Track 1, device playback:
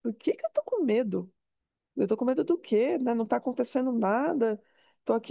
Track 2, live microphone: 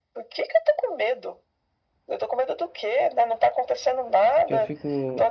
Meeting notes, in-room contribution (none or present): present